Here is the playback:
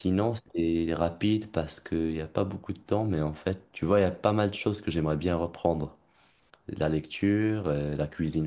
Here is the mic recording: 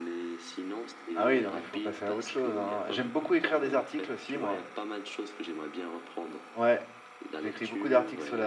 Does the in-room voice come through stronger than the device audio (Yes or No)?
Yes